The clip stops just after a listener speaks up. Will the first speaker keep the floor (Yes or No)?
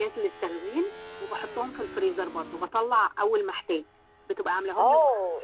No